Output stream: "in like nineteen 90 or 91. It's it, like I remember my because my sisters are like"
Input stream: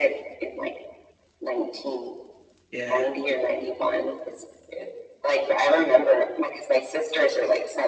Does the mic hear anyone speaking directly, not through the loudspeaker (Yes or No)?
Yes